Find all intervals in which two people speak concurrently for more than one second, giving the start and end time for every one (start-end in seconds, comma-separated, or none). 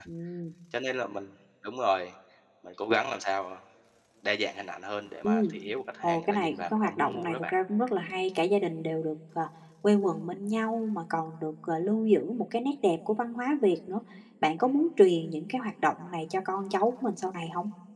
6.0-7.5